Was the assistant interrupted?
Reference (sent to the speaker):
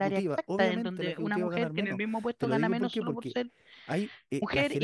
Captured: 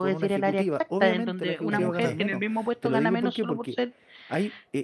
Yes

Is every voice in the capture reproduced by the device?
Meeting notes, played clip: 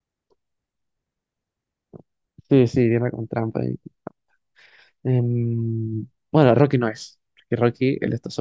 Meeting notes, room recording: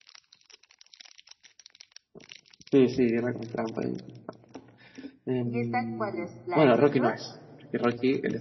No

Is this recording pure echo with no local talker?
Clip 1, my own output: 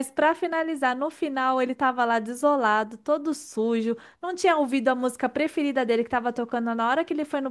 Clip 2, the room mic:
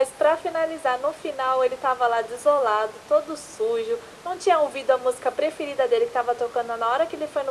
Yes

